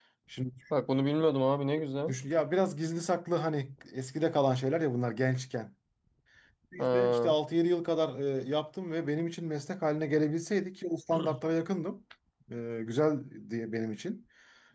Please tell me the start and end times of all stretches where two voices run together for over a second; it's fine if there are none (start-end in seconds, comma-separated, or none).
none